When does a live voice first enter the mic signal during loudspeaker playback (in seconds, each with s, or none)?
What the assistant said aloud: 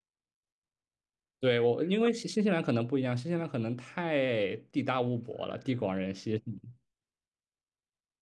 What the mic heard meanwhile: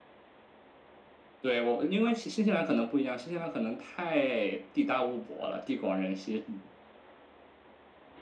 none